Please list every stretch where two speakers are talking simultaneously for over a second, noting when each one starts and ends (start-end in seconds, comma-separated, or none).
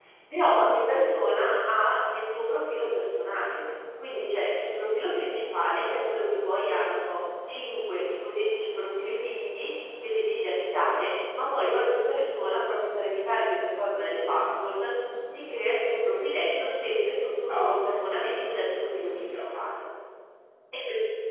17.5-19.6